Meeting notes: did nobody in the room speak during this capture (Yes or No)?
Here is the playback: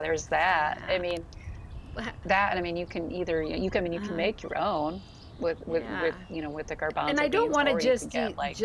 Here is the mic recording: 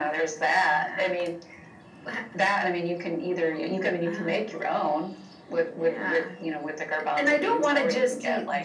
Yes